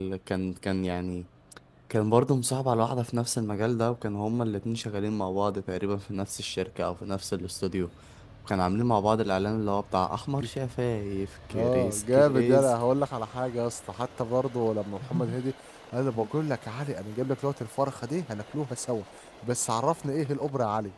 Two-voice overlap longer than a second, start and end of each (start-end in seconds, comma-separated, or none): 11.5-12.7